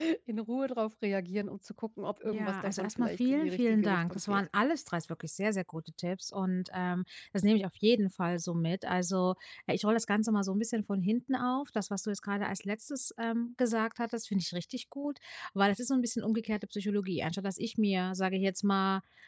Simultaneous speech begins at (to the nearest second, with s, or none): 2 s